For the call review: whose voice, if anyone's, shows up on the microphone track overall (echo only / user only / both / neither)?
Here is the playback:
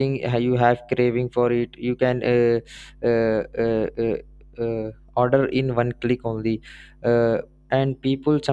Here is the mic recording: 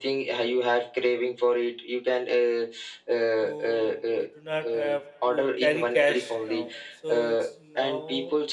both